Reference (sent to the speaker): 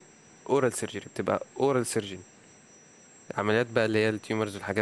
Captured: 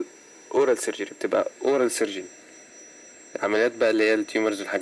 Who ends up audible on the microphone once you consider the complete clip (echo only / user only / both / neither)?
echo only